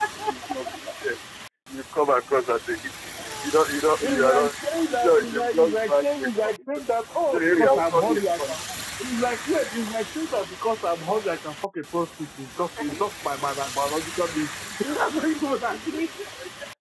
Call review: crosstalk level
present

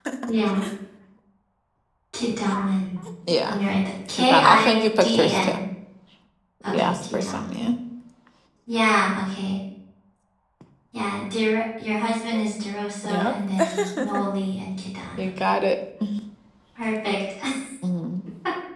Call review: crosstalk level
present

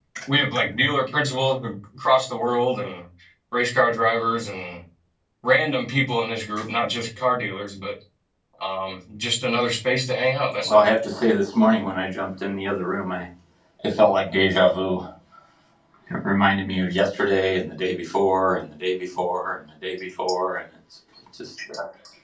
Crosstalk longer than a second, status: none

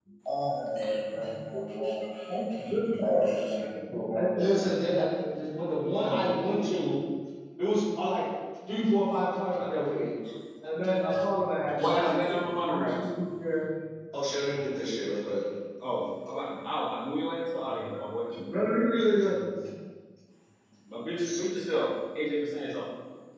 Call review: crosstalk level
present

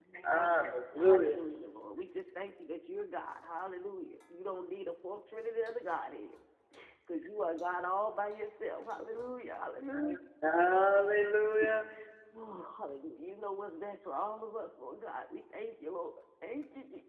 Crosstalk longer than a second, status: none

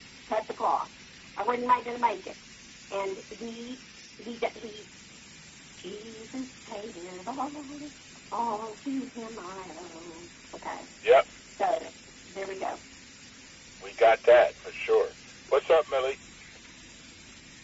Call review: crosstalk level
none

